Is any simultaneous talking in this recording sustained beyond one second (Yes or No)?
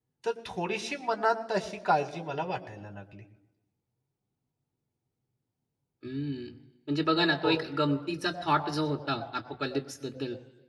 No